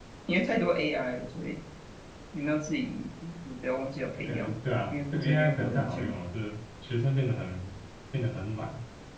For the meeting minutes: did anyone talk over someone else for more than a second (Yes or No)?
Yes